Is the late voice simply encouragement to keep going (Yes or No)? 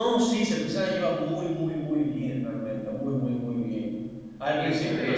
Yes